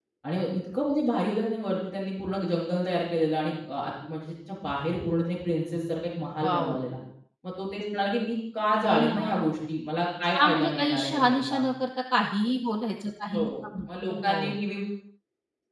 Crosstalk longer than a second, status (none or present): present